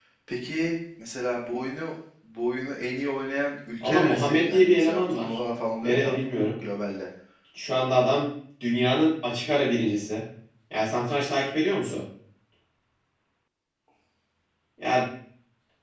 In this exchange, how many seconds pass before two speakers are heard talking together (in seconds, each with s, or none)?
3.8 s